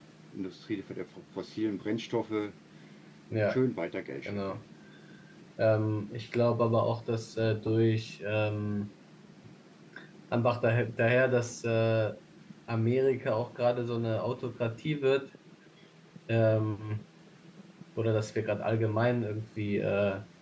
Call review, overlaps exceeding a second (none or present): none